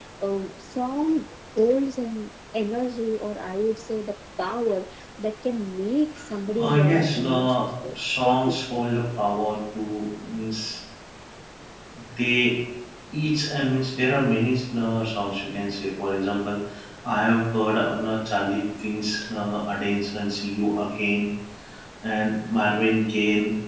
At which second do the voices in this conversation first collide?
6.6 s

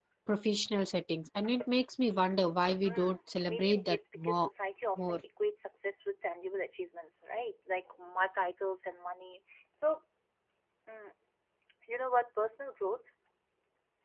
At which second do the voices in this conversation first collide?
2.8 s

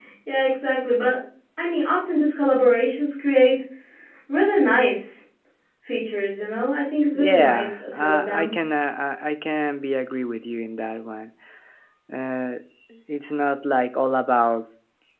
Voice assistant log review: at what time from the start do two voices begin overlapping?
7.2 s

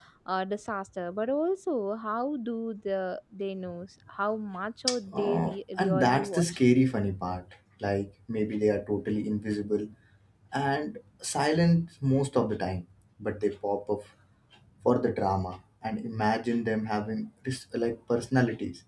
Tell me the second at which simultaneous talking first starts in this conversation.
5.1 s

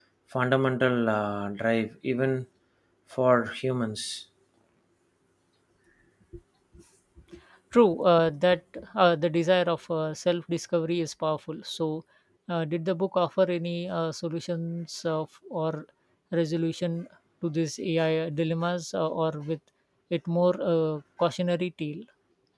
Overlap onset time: none

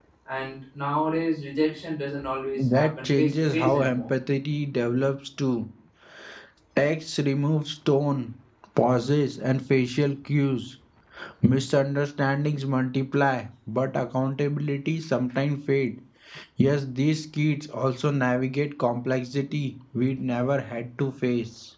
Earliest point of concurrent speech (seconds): 2.6 s

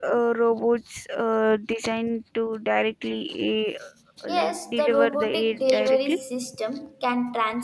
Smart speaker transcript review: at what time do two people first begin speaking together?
4.3 s

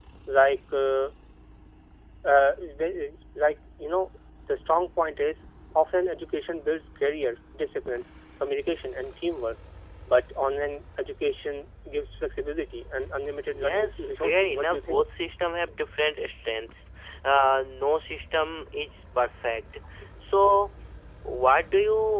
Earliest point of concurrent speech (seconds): 13.4 s

